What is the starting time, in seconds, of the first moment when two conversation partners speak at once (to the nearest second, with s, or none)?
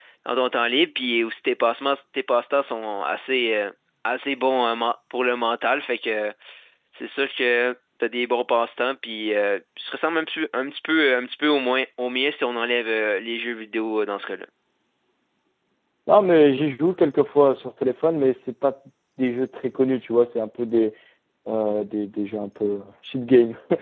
none